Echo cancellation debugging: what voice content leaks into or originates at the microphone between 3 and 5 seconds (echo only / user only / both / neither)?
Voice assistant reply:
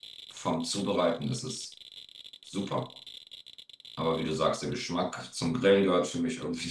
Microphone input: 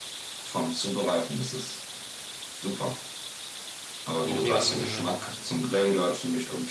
both